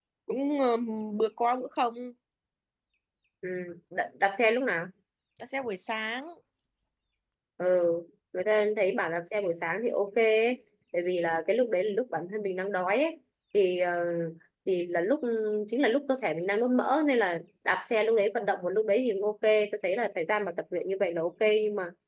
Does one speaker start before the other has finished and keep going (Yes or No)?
No